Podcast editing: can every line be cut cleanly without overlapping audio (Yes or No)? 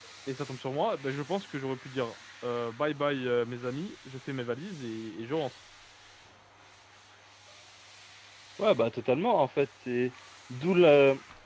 Yes